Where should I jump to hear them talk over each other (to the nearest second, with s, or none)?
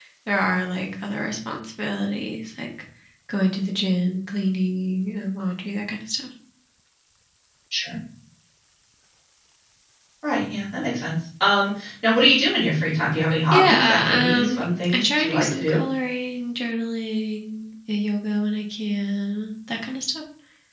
14 s